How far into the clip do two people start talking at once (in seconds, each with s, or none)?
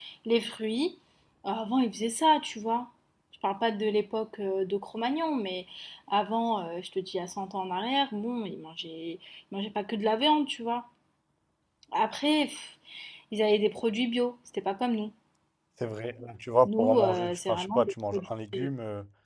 16.6 s